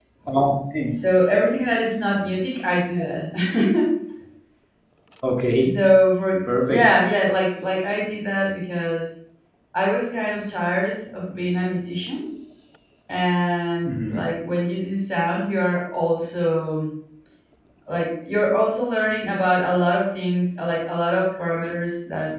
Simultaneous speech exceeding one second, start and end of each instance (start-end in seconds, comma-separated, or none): none